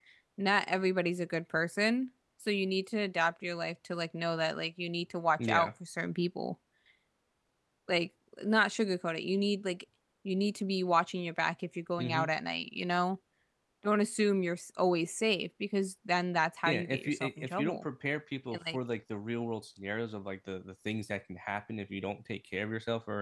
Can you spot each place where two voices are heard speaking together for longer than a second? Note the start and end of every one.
16.6-17.9

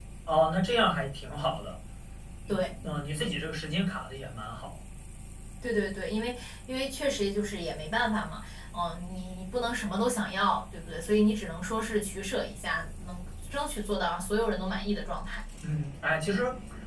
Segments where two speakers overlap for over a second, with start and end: none

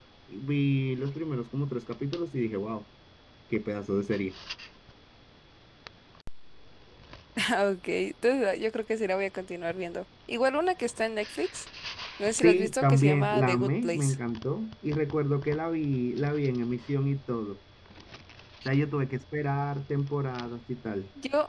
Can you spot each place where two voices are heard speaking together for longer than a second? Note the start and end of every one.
12.4-14.2

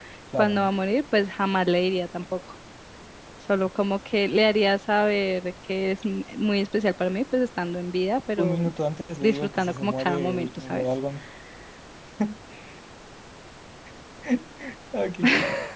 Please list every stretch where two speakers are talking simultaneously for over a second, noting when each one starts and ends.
9.2-10.8

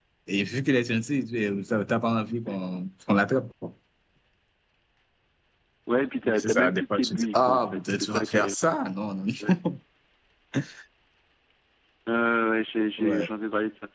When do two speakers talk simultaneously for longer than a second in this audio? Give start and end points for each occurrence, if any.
6.2-8.5

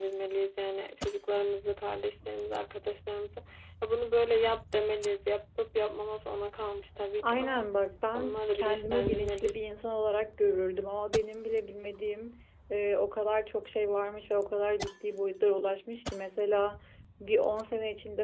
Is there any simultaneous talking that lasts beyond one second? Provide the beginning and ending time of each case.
8.1-9.6

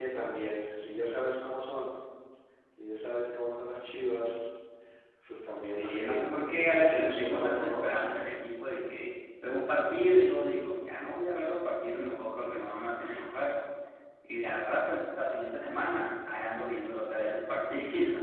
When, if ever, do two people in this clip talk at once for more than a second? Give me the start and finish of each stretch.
6.7-7.9

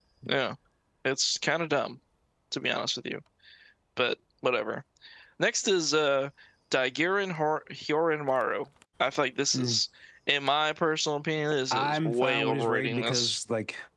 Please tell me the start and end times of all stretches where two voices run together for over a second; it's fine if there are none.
11.7-13.4

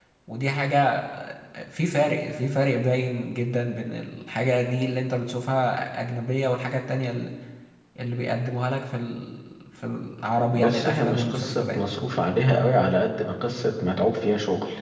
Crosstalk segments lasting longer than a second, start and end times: 10.5-11.8

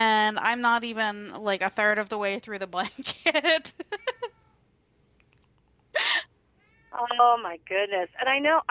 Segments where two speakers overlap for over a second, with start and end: none

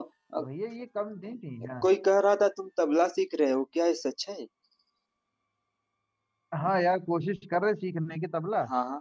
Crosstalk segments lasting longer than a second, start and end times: none

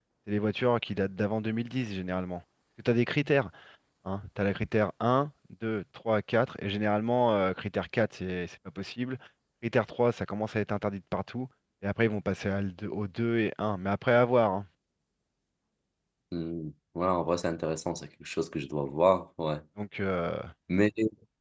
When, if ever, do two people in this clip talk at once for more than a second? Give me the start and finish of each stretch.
none

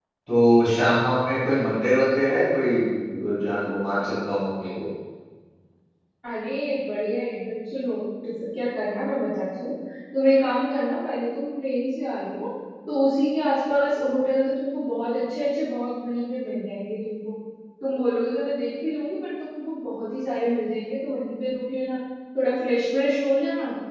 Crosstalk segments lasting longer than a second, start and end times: none

